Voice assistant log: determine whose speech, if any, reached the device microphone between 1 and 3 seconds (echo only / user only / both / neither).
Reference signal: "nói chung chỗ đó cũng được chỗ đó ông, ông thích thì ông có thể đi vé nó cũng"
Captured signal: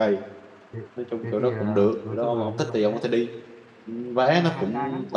both